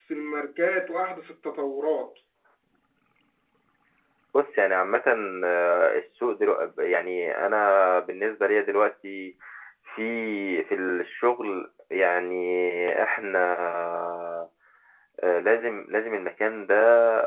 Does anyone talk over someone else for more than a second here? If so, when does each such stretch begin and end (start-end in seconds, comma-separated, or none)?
none